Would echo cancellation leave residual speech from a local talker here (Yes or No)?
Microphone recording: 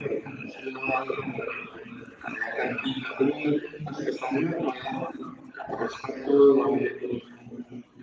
No